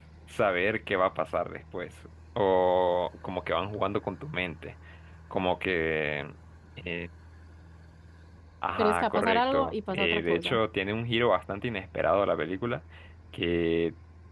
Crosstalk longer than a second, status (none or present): present